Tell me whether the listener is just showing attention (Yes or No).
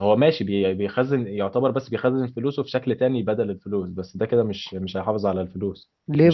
No